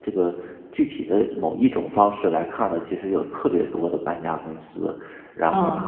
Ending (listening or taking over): listening